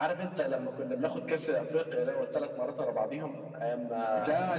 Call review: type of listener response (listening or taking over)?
taking over